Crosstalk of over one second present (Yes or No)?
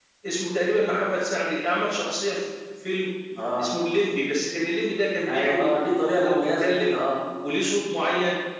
Yes